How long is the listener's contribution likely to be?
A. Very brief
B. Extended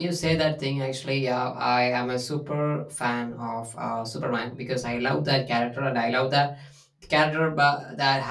A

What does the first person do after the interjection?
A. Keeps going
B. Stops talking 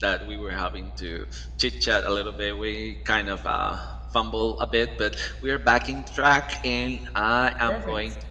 A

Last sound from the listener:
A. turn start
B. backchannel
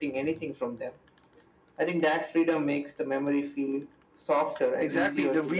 A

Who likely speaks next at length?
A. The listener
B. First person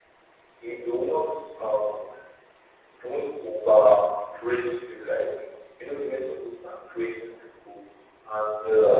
B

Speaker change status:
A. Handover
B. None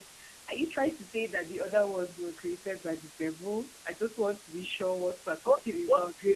A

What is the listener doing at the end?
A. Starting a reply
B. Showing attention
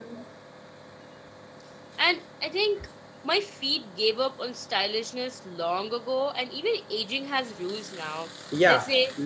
A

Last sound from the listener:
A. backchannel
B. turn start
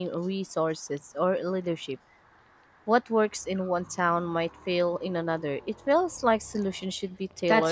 B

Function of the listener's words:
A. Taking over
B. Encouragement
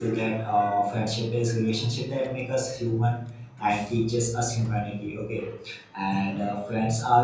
B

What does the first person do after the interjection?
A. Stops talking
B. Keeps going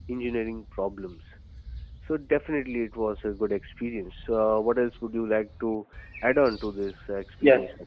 A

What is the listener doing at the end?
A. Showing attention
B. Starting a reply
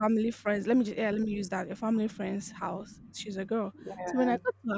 A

